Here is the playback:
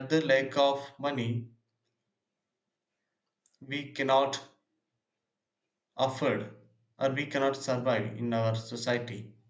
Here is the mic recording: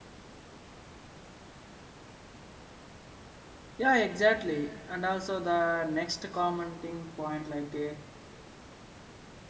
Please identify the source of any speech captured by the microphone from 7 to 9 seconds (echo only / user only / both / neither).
user only